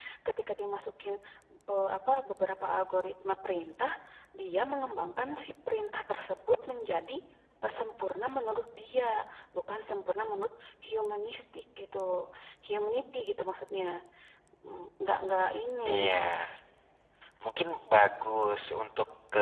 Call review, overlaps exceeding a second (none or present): none